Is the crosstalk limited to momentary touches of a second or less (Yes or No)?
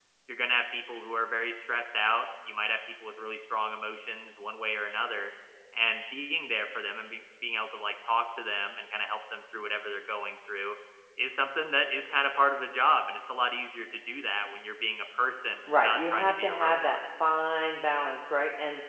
No